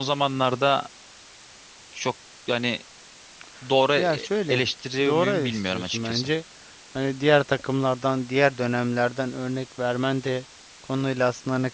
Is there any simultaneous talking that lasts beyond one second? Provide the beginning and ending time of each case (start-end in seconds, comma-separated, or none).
5.0-6.3